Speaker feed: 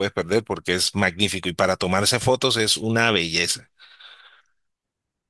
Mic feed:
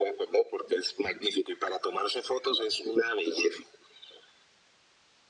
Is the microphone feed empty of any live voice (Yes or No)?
Yes